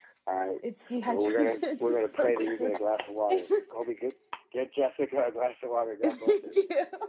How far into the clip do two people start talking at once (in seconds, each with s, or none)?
1.1 s